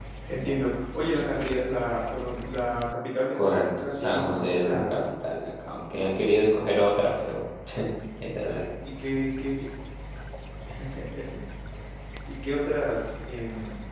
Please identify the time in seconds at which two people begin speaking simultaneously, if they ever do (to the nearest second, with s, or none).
3 s